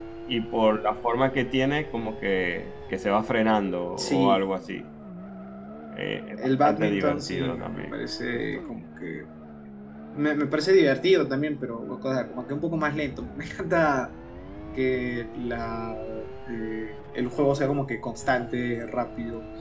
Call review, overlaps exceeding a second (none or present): present